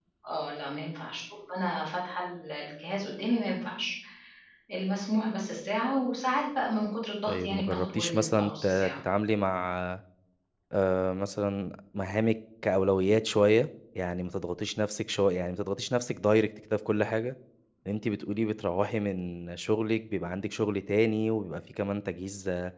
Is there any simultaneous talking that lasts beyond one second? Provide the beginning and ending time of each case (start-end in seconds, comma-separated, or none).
7.3-9.0